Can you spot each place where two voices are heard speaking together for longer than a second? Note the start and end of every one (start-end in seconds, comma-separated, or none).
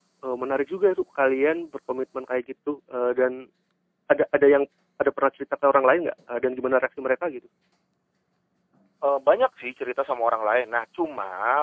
none